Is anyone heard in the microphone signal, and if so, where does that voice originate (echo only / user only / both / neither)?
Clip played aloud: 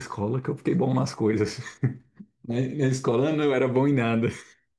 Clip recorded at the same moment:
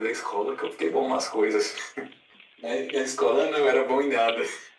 echo only